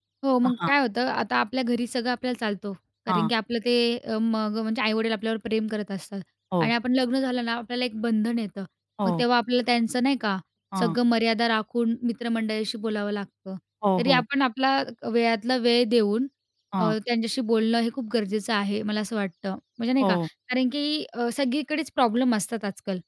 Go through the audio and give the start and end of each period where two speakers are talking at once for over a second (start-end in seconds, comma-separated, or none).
none